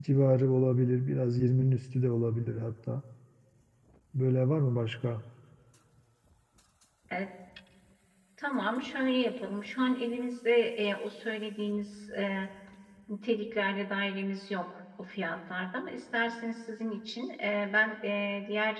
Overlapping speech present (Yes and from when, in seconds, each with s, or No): No